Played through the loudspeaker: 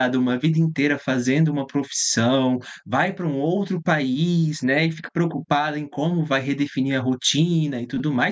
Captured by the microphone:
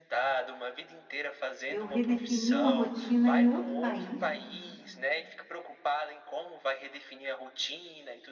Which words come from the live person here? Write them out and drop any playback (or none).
Eu redefini uma rotina em outro país.